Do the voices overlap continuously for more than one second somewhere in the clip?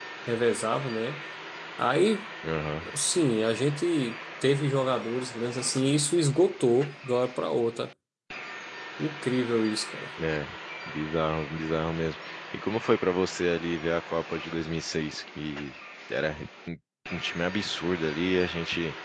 No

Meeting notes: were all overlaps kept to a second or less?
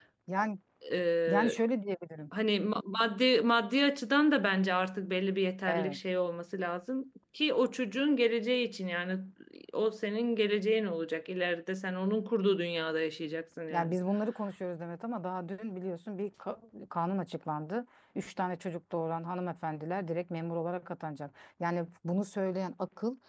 Yes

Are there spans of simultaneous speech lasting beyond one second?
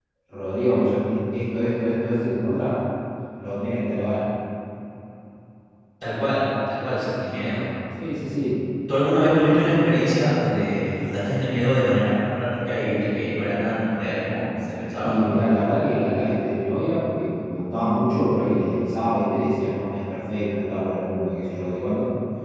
No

